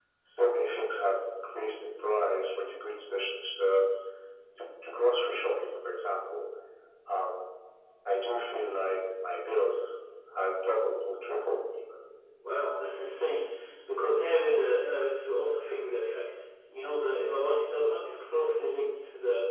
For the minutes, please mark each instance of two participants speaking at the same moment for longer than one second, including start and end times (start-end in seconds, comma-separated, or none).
none